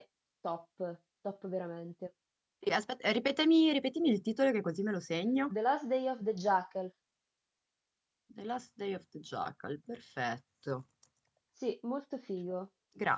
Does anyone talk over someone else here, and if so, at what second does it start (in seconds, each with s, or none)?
none